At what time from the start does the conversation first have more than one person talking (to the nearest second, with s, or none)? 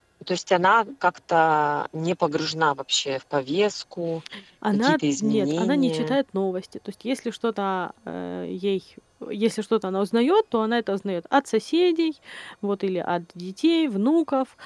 5 s